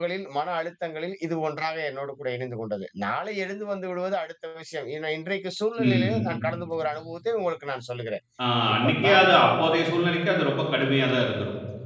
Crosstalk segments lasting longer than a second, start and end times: none

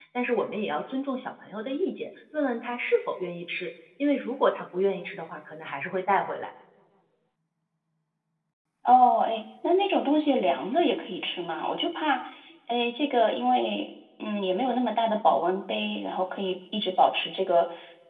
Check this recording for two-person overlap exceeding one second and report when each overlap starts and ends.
none

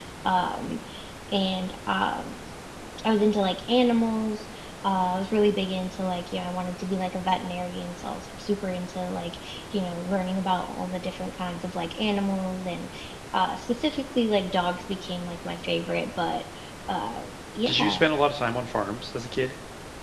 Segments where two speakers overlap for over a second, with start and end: none

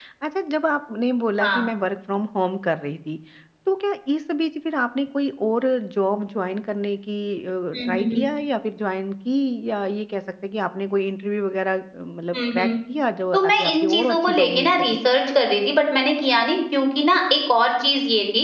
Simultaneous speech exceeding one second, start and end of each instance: 13.3-14.8

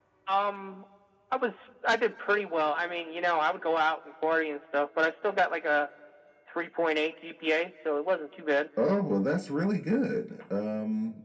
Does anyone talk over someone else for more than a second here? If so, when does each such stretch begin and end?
none

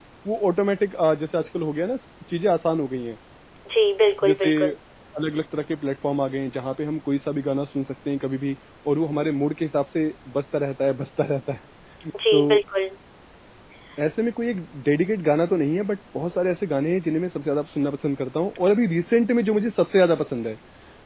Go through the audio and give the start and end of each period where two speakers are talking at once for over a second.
none

